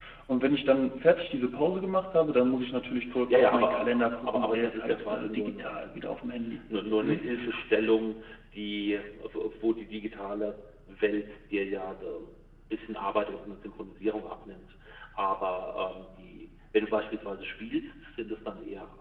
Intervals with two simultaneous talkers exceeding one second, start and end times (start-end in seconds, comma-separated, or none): 3.3-6.1